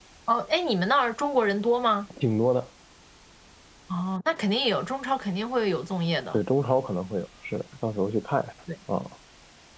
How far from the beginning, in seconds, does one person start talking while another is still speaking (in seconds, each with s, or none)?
none